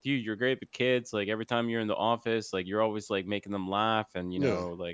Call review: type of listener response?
listening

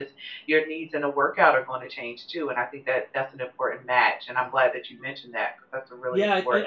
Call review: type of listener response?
taking over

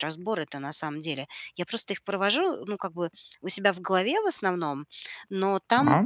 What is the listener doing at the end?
listening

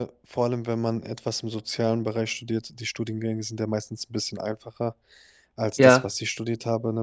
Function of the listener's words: listening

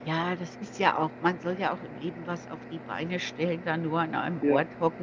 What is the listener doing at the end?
listening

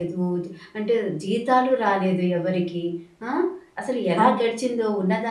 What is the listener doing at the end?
listening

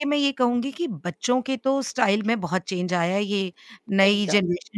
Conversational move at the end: listening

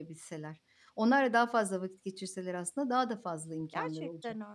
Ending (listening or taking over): taking over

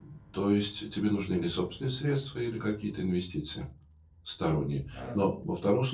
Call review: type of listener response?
listening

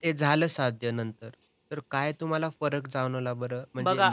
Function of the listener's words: listening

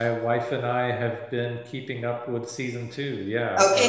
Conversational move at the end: taking over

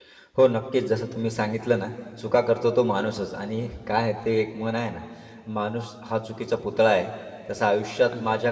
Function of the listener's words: listening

